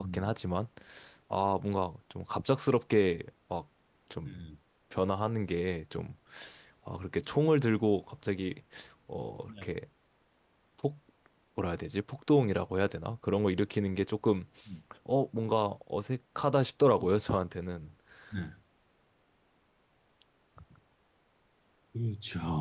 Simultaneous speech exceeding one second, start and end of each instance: none

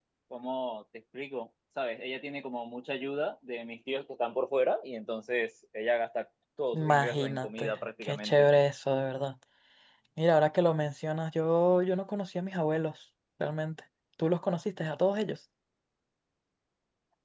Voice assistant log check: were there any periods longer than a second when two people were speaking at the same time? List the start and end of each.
6.7-8.5

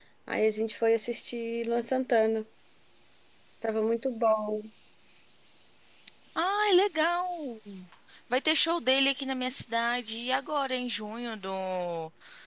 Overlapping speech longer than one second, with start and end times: none

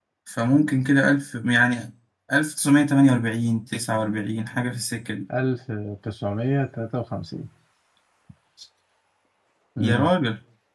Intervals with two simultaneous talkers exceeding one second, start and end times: none

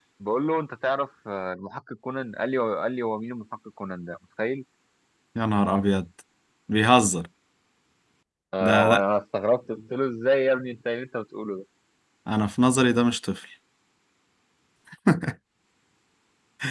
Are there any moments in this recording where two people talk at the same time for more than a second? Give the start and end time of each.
none

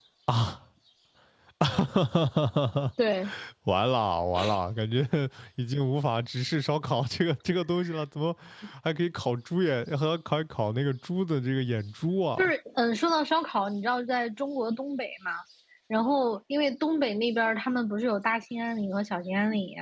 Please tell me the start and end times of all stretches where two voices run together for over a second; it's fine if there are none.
none

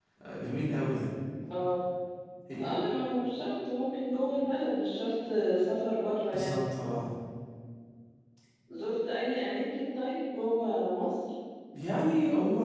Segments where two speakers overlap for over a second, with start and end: none

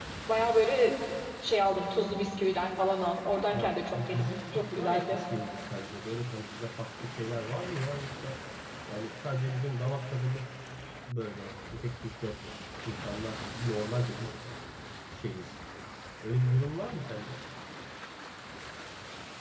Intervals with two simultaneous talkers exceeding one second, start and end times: 3.5-5.2

